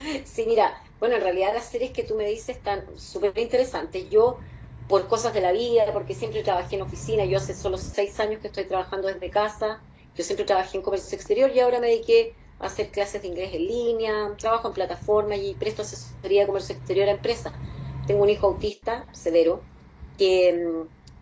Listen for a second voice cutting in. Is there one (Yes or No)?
No